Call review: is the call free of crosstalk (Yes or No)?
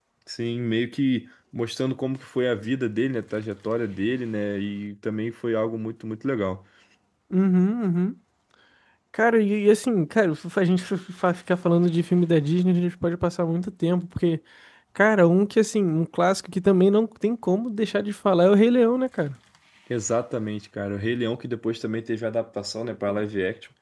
Yes